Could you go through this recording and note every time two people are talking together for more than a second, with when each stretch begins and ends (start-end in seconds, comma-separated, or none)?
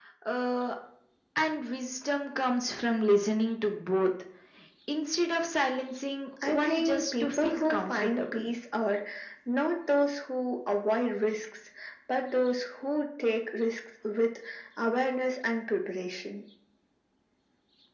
6.4-8.2